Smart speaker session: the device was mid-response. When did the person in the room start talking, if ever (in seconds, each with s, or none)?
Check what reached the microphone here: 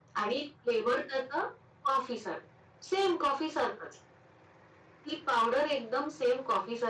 none